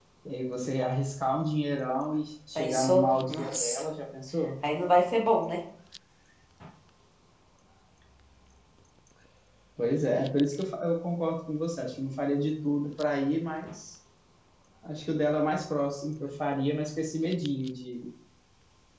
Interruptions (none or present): present